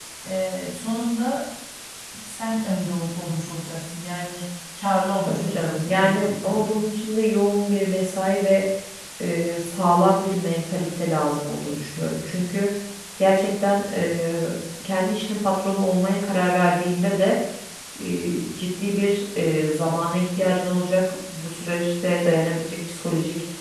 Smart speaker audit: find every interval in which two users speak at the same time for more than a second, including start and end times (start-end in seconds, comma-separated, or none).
5.2-6.7